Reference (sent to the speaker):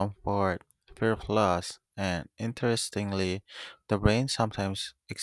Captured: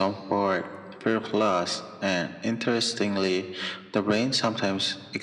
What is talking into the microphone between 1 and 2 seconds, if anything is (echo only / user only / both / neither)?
echo only